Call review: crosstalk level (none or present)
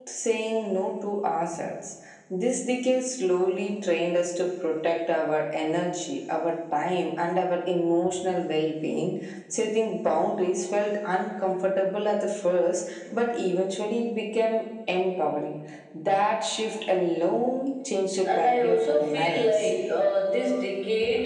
present